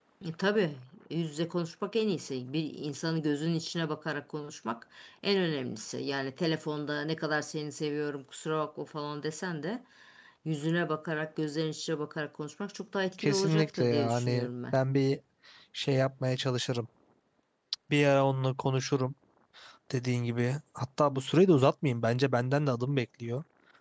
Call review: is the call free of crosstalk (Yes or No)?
No